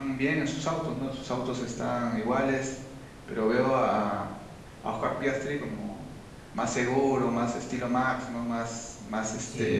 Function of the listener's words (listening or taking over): listening